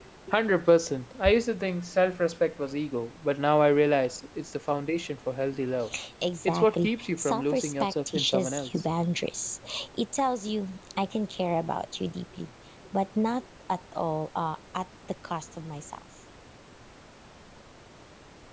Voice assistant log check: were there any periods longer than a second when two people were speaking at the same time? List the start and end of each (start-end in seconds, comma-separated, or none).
6.4-8.7